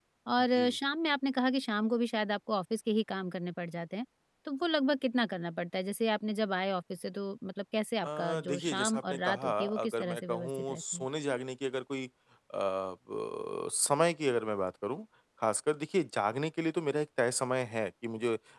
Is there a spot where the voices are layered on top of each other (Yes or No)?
Yes